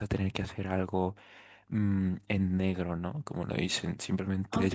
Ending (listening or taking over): listening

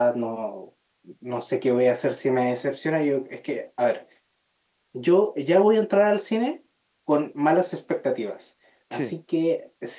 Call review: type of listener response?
listening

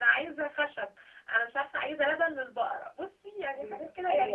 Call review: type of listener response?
taking over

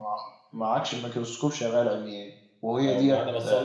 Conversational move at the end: taking over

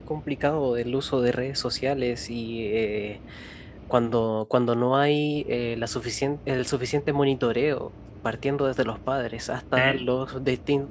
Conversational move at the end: listening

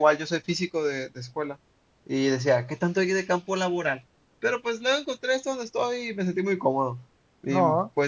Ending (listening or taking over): listening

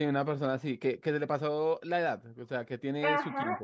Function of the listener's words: taking over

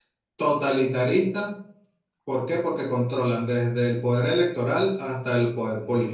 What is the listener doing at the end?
taking over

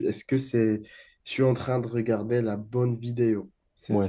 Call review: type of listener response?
taking over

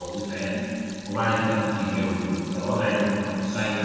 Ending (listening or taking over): listening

